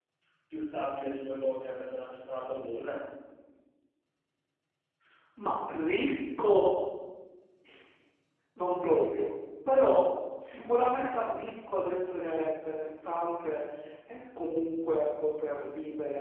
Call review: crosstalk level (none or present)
none